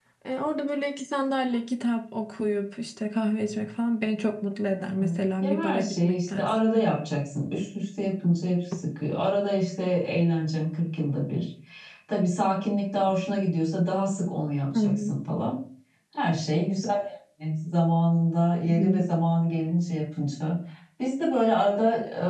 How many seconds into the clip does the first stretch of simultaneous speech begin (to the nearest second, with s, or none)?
5 s